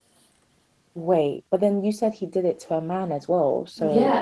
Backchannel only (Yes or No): No